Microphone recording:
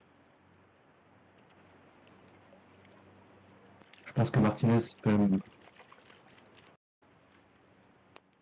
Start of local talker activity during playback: 4.1 s

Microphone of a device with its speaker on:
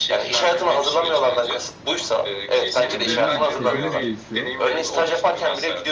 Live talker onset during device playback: 2.9 s

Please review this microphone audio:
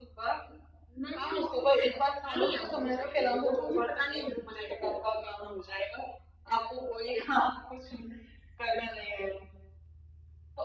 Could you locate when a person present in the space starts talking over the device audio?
none

